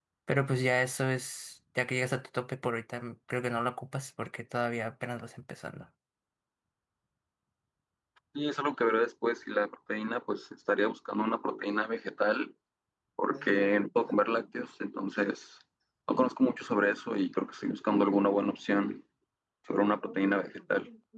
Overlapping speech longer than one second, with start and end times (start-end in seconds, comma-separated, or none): none